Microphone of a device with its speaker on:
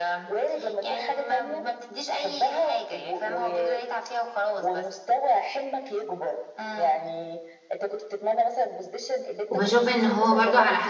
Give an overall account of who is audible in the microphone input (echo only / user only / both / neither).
both